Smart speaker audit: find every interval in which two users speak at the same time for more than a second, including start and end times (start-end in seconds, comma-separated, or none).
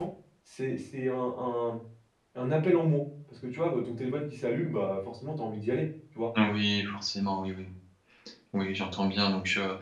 none